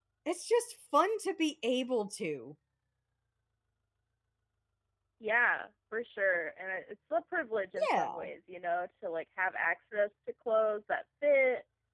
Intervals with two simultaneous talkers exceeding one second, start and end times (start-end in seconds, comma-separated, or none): none